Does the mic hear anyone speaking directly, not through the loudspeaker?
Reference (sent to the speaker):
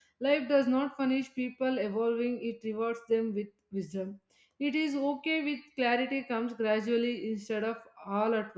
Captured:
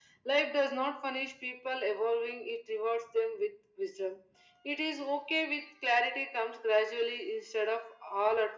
No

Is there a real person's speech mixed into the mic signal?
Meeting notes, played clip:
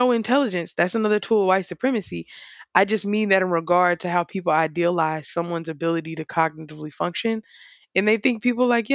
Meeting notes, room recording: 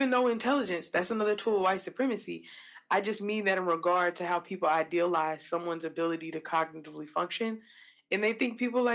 No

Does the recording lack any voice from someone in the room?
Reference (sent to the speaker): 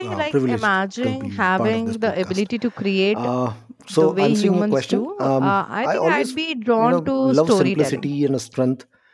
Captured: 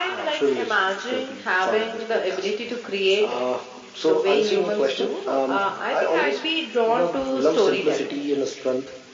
Yes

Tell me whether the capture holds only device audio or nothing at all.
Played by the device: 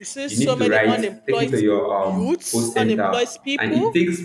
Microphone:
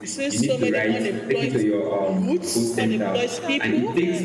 No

